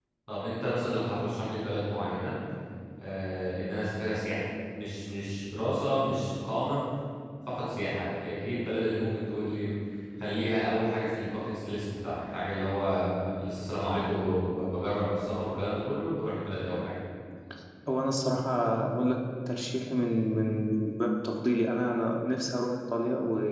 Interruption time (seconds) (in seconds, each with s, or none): none